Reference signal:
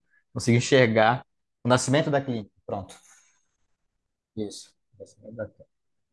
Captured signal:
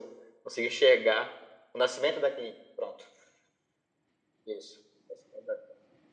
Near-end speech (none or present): none